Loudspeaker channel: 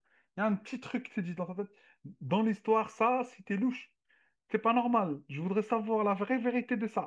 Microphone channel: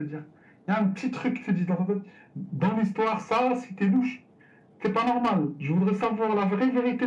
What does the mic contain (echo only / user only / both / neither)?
echo only